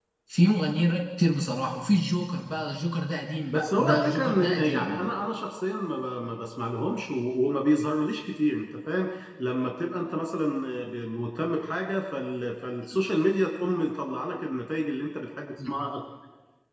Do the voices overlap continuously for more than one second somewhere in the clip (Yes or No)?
Yes